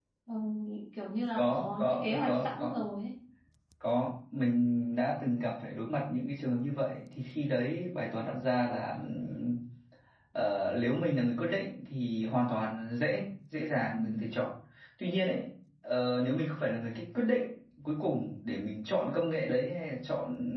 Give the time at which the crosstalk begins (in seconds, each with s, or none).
1.4 s